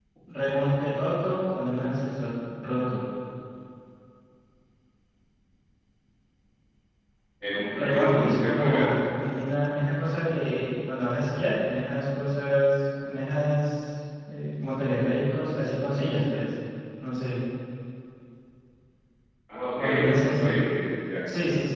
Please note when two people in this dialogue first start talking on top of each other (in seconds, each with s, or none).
7.7 s